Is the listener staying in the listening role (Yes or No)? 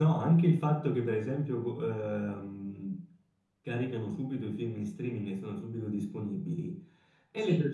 Yes